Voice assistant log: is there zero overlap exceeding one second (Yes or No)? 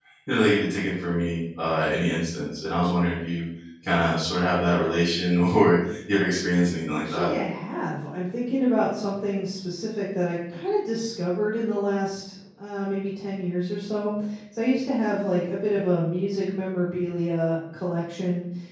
Yes